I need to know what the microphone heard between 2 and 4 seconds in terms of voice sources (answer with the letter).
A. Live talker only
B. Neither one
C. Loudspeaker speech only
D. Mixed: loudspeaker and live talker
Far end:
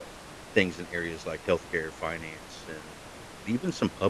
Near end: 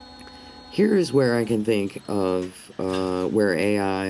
A